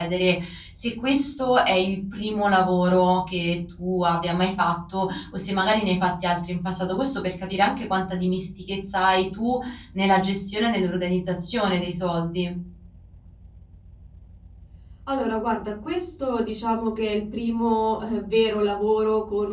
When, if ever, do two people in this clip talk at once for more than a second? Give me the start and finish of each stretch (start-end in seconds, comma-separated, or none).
none